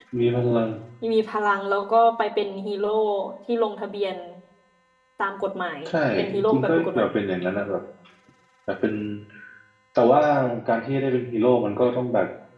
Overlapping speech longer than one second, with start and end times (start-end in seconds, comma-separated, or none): 5.9-7.1